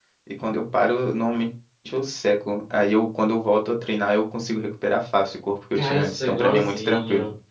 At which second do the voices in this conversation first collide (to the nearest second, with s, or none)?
6 s